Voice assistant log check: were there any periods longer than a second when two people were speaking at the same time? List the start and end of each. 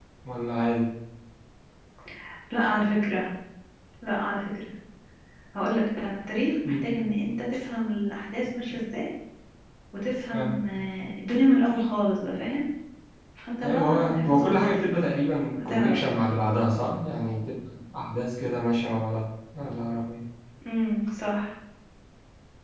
13.6-14.8

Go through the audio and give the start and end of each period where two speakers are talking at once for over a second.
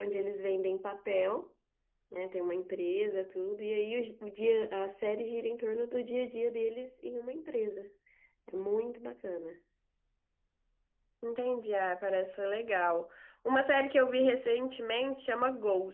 none

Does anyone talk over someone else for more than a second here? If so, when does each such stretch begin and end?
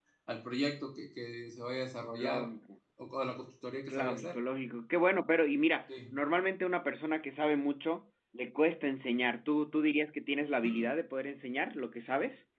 none

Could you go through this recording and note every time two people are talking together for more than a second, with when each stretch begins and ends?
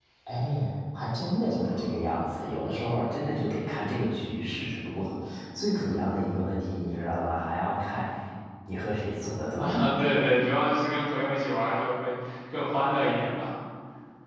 none

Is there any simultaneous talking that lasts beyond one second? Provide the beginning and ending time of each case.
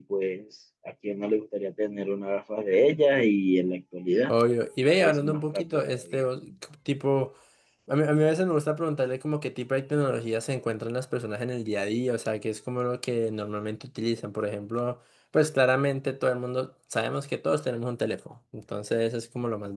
5.0-6.2

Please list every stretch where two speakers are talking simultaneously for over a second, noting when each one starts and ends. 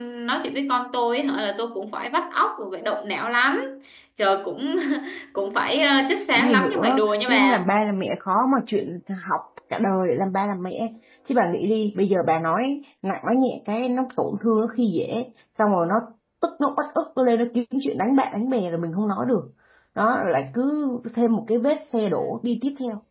6.3-7.7

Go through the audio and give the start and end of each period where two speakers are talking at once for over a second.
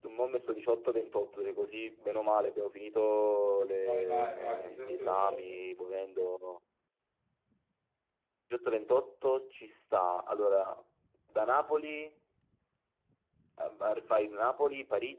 3.9-5.6

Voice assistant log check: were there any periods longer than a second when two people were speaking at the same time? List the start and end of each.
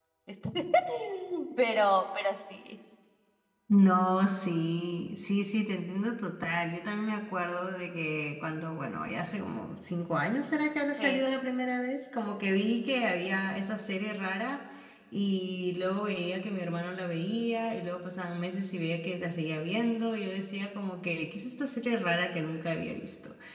none

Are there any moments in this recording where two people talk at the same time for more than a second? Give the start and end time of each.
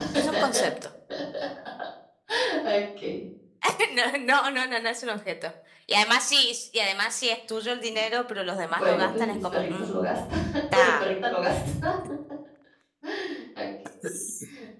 8.7-9.9

